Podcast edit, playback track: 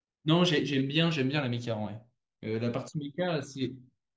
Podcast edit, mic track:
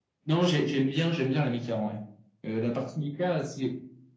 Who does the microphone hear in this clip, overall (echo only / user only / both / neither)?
echo only